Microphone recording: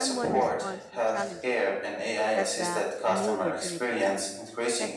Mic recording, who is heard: both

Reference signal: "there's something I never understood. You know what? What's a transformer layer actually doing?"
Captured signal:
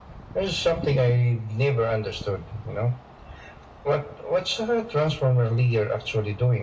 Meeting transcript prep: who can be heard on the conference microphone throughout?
echo only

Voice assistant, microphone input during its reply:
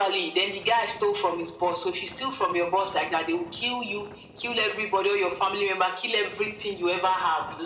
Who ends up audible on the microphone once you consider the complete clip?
echo only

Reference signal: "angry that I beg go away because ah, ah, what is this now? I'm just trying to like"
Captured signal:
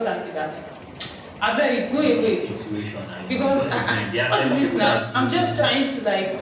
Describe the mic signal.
both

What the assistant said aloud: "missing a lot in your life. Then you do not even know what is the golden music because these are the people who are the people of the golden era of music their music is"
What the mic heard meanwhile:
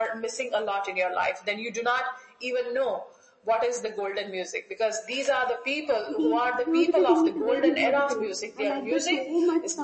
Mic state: both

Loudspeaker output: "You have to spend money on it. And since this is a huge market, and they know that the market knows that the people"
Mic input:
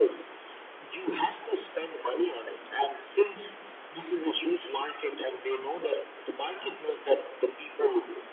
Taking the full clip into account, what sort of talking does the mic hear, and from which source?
echo only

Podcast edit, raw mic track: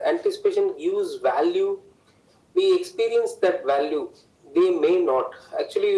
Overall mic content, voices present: echo only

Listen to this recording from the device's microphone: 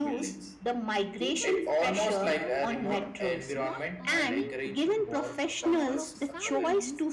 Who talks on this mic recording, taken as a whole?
both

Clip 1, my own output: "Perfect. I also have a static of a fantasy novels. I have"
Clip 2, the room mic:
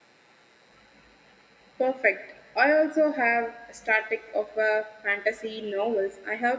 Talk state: echo only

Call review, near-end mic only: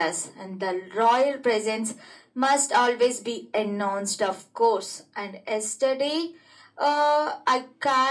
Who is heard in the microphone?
echo only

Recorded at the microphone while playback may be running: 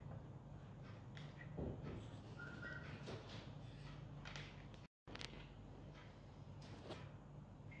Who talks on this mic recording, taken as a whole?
neither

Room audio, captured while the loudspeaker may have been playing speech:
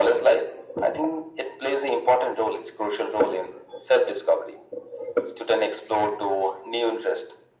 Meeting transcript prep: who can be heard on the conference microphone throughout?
echo only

